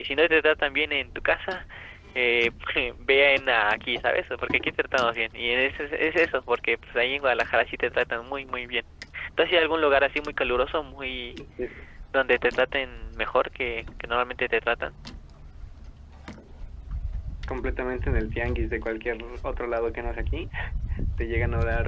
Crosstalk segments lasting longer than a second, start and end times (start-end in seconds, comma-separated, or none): none